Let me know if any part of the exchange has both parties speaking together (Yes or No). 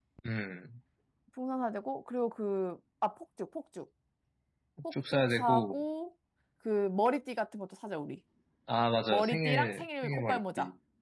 Yes